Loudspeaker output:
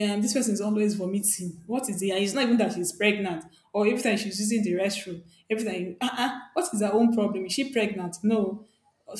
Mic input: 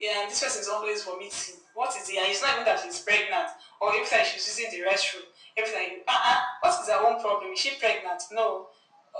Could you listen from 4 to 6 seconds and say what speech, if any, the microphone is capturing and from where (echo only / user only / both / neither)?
echo only